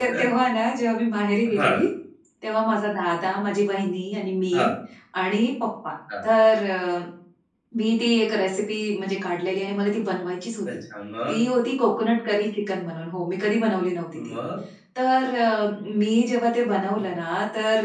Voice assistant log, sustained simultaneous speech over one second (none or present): none